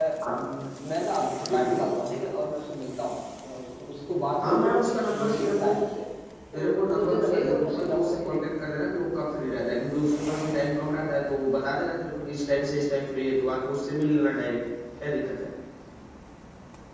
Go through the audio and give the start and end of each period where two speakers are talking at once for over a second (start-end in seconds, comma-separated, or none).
4.4-5.7, 6.5-8.5